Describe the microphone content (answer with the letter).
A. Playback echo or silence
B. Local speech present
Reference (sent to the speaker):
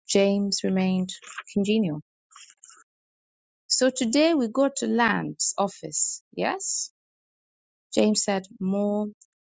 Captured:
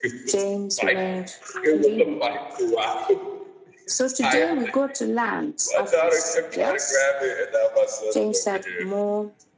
B